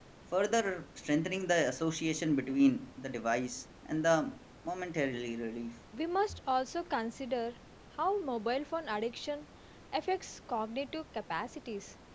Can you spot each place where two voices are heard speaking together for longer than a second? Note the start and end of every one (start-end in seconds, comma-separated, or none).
none